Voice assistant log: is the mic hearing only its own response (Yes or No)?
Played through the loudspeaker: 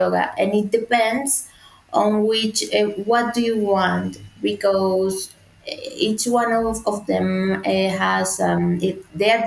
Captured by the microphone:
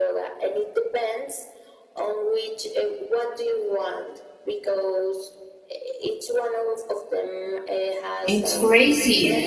No